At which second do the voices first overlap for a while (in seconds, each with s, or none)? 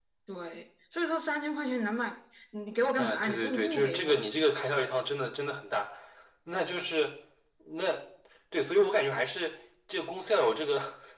3.0 s